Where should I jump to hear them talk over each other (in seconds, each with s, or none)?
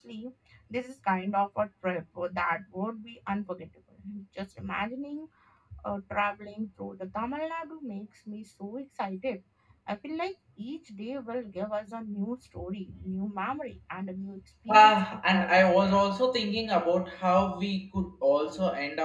14.7 s